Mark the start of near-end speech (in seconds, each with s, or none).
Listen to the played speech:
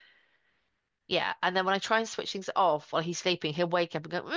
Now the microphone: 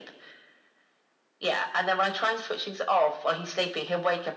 none